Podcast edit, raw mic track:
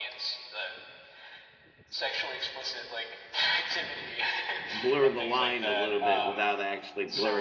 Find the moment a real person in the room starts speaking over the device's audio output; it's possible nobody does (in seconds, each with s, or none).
4.7 s